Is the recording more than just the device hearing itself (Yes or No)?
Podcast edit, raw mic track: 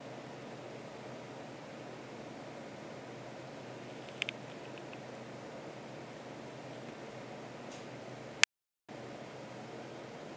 No